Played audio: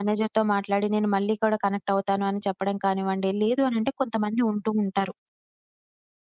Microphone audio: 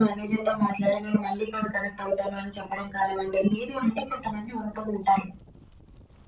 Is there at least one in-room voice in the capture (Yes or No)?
No